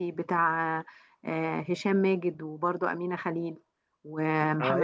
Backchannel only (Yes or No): No